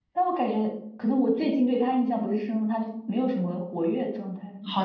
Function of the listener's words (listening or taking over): taking over